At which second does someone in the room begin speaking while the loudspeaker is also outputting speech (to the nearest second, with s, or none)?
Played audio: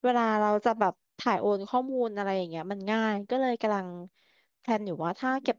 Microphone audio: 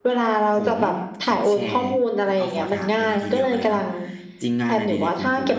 0 s